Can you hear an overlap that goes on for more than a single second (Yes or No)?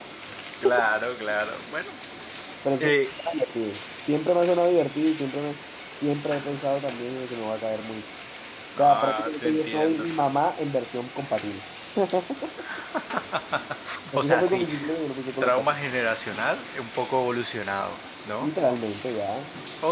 Yes